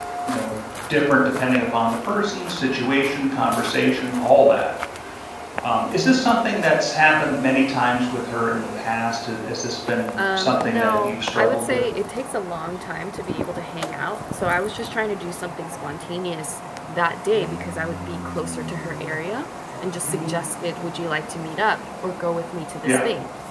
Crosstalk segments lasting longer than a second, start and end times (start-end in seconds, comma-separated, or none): 10.4-11.8